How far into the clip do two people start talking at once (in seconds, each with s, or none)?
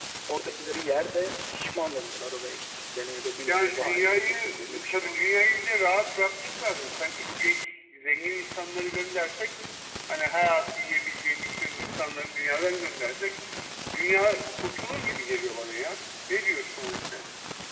3.5 s